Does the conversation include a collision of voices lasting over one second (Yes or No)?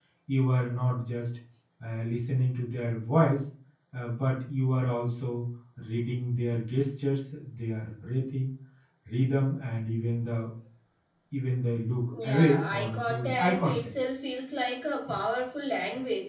Yes